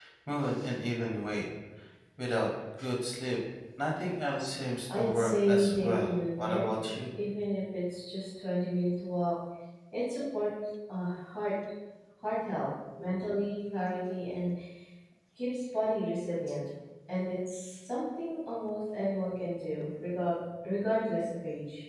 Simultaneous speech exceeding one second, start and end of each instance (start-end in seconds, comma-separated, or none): 4.9-6.7